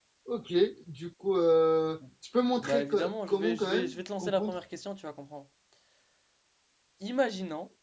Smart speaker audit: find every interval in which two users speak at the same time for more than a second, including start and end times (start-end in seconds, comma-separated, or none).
2.6-4.5